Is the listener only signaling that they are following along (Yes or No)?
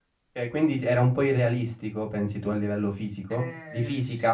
No